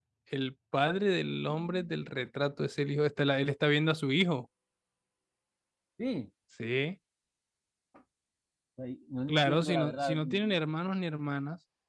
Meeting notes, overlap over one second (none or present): present